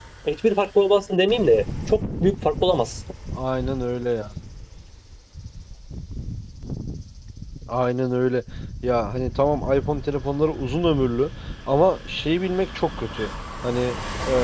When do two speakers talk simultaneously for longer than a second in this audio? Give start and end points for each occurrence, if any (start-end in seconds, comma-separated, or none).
none